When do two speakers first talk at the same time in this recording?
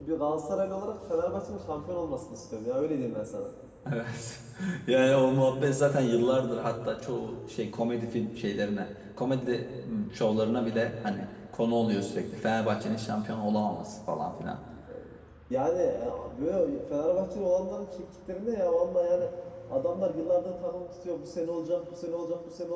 none

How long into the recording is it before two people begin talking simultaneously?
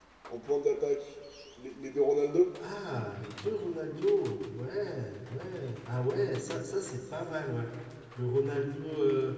none

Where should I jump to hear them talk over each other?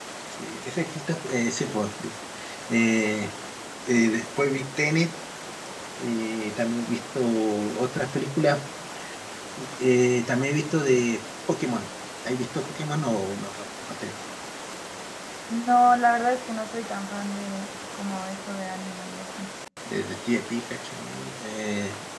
none

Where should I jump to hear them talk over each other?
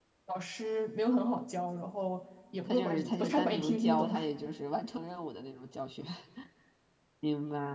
2.6 s

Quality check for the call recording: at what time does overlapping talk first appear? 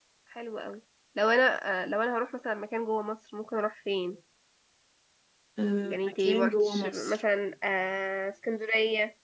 5.9 s

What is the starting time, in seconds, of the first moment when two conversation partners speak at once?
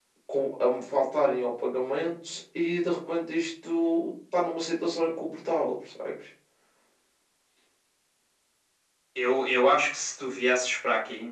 none

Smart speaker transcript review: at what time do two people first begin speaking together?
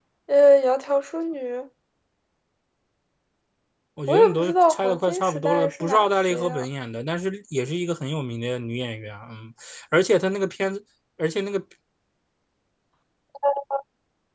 4.1 s

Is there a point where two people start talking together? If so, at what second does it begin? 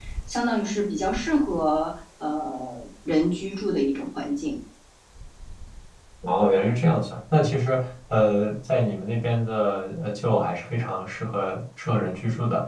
none

